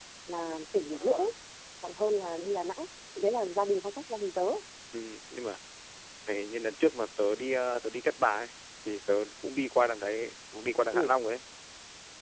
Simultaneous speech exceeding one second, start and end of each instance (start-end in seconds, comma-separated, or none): none